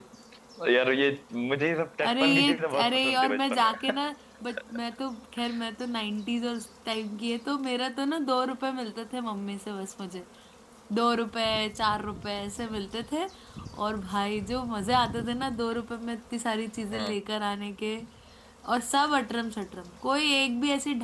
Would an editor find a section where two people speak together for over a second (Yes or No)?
Yes